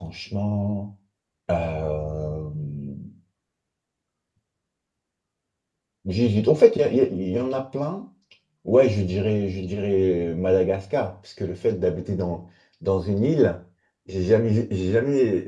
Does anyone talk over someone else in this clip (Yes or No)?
No